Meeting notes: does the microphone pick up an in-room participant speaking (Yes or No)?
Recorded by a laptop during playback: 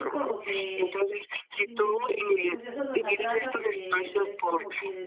Yes